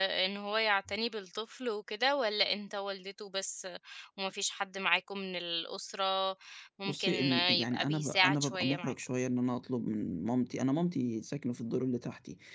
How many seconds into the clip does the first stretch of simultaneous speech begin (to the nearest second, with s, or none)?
7 s